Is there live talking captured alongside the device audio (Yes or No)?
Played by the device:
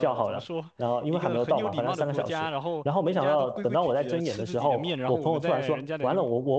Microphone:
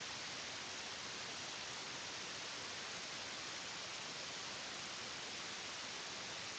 No